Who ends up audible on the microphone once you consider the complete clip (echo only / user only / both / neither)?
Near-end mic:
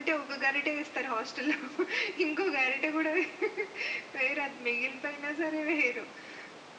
echo only